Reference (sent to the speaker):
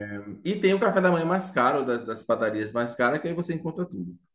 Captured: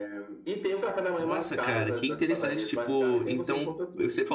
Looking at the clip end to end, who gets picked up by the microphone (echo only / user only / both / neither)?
both